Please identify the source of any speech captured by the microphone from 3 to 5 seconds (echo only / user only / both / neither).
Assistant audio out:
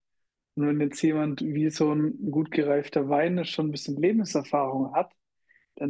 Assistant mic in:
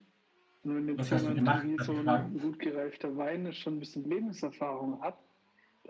echo only